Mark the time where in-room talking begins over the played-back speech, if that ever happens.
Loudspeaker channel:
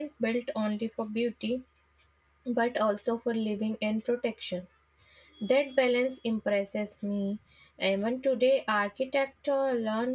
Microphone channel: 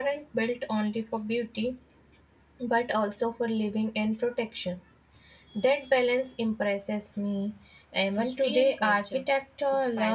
8 s

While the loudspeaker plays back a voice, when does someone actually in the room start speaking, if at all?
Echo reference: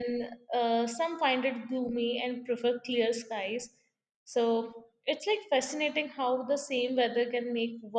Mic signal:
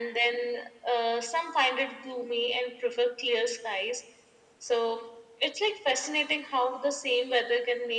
none

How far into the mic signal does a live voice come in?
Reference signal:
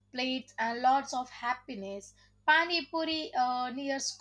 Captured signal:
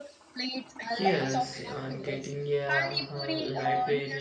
1 s

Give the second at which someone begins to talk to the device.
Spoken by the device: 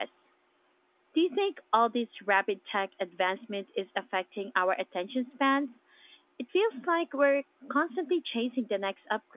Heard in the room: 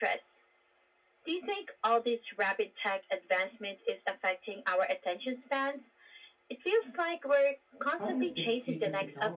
8 s

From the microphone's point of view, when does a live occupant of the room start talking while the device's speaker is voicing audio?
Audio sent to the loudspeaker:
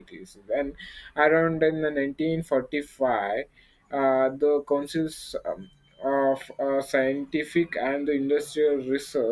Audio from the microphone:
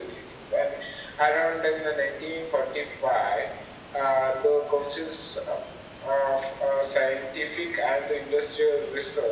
none

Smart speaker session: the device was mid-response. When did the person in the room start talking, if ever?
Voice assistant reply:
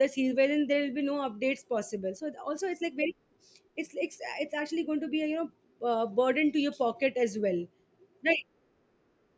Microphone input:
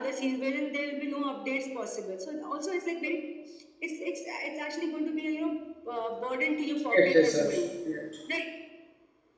7 s

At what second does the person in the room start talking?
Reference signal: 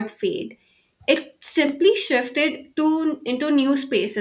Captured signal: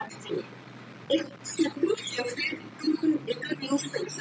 none

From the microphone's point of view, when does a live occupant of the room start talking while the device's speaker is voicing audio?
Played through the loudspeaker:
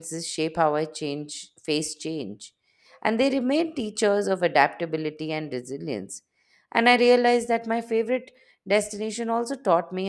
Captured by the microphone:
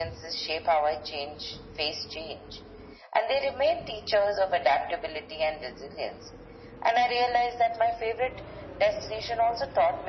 none

